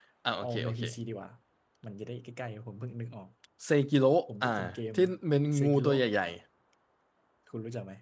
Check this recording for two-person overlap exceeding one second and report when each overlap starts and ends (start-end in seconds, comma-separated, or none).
none